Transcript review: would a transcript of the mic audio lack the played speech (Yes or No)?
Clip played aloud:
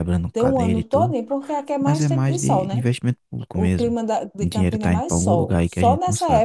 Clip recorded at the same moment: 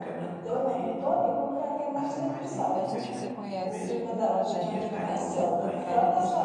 No